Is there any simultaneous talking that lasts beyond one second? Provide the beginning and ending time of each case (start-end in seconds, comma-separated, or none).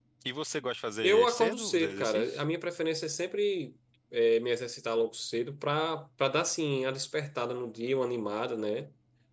1.0-2.4